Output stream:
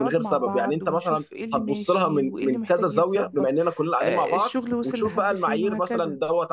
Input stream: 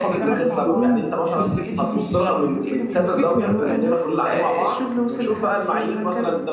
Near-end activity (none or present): present